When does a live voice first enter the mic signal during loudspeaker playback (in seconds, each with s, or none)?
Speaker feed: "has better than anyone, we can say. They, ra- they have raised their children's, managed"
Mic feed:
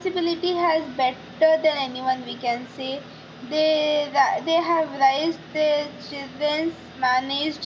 none